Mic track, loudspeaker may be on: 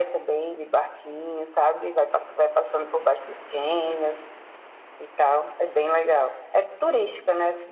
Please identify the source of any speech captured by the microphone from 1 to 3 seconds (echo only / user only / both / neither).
echo only